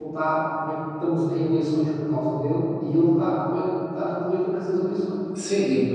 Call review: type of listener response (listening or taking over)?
taking over